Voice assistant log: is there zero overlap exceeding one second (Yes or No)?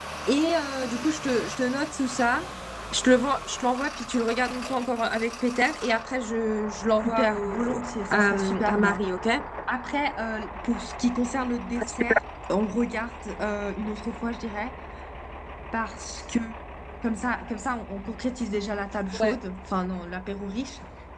No